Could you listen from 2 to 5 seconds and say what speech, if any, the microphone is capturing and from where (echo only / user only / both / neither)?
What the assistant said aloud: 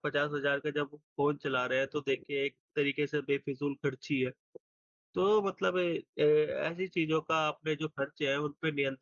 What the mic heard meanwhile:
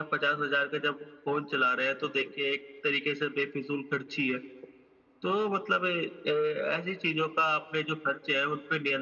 echo only